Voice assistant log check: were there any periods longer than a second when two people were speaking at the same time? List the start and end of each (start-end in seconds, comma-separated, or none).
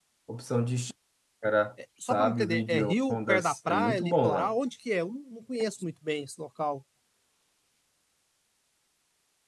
2.1-4.5